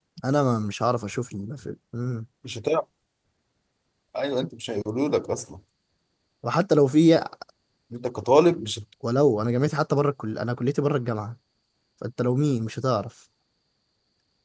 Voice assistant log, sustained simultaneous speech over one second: none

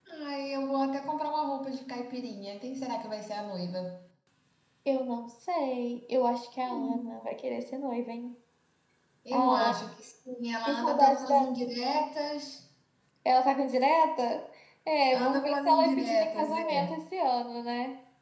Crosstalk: present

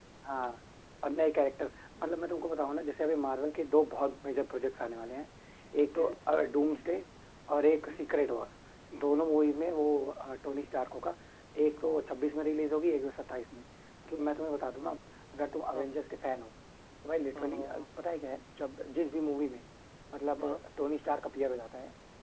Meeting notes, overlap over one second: none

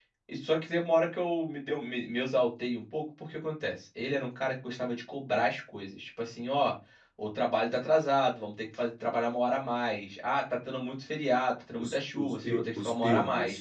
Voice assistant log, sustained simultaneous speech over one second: present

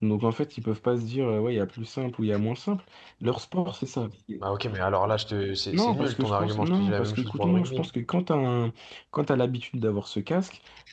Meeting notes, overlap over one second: present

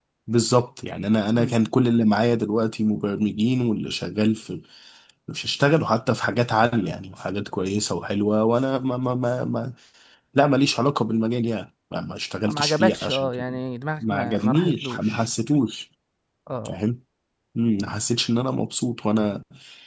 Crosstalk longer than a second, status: present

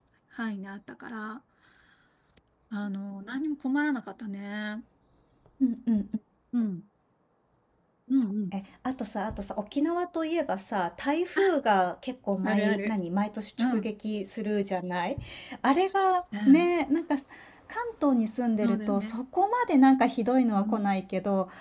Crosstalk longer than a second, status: none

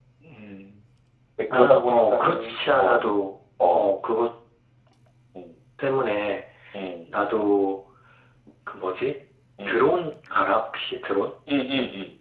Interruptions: present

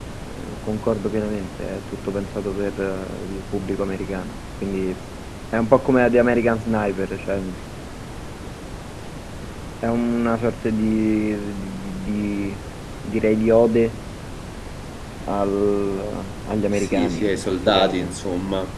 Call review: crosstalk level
present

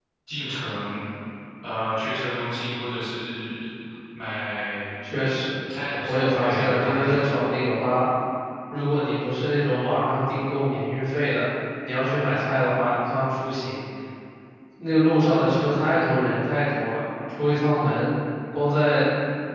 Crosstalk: present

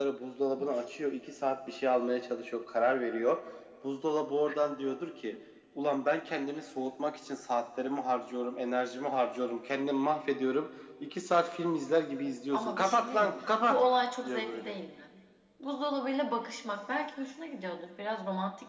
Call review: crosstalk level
present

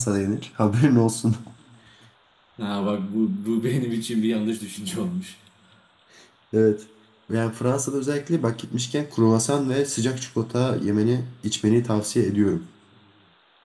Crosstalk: none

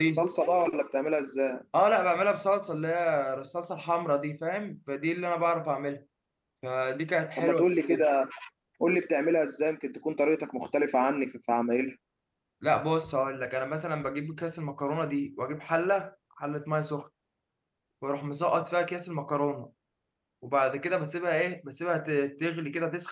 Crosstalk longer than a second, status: none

